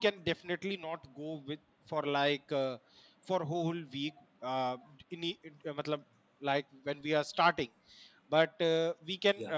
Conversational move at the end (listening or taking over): listening